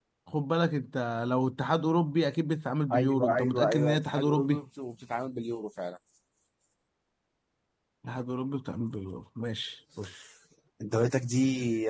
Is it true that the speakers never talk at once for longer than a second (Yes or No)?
No